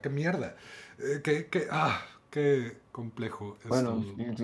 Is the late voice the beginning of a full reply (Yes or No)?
Yes